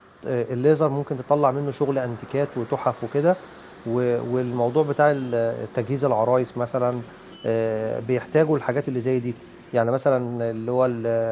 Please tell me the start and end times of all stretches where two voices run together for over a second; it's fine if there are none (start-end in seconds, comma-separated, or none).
none